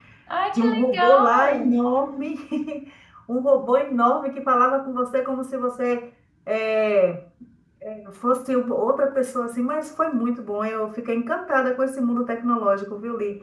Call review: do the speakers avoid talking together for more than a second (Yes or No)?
No